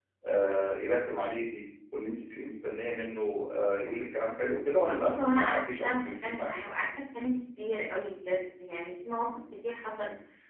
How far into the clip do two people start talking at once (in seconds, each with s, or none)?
4.8 s